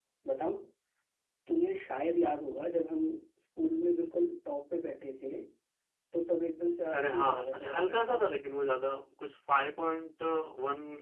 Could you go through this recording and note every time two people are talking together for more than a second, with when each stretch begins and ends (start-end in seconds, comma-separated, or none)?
6.9-8.2